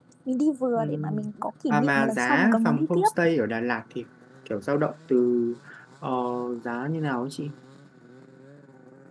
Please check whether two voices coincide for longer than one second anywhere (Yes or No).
Yes